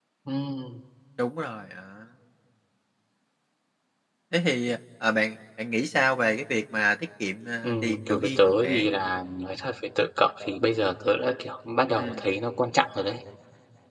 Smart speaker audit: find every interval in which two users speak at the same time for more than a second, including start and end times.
7.6-8.9

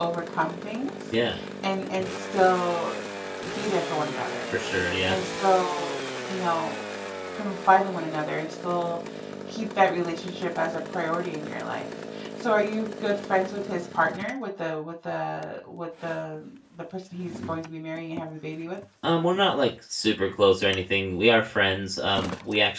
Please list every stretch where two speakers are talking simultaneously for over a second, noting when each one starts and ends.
none

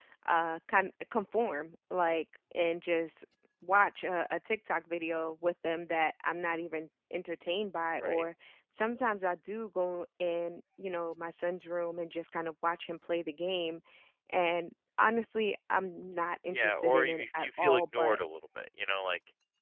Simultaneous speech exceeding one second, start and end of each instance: 16.5-18.2

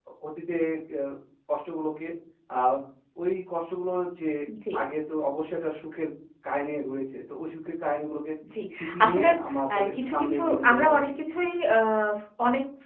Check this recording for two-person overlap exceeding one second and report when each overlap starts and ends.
9.7-11.1

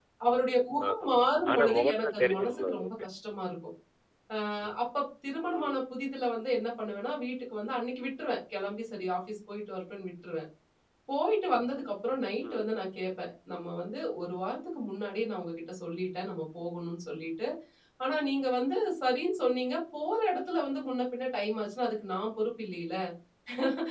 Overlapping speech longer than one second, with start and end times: 1.5-2.9

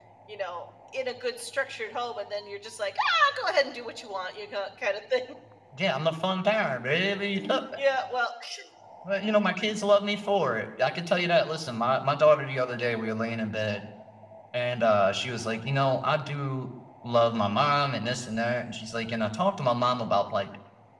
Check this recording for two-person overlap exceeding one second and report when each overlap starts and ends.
none

